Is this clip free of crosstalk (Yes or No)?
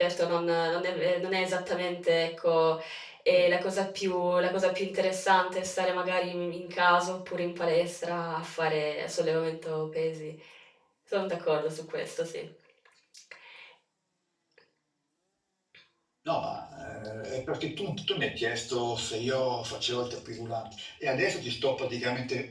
Yes